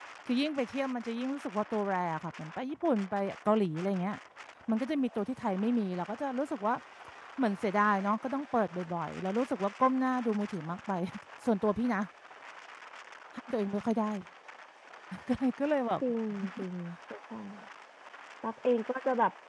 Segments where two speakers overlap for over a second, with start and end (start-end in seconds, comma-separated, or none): none